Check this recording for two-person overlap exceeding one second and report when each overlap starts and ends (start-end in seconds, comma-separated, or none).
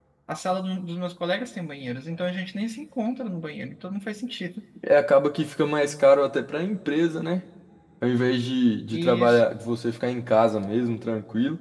none